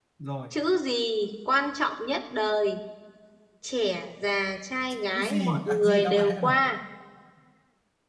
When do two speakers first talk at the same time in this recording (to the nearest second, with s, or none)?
5 s